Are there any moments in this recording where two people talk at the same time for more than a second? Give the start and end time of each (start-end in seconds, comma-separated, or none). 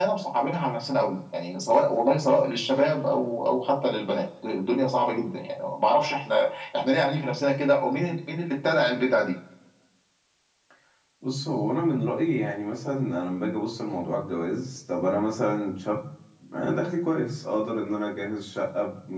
none